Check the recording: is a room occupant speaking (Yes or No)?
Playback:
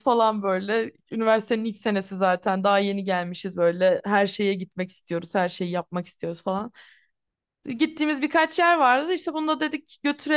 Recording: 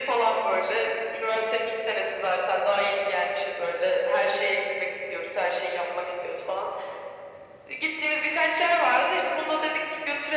No